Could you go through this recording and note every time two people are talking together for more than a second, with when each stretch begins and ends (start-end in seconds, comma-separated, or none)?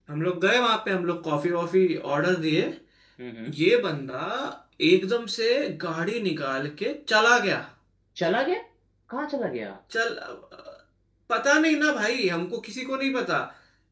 none